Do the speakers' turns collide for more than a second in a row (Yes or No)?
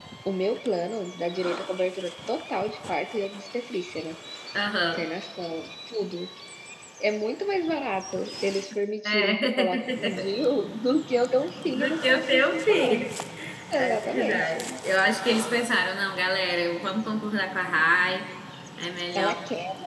Yes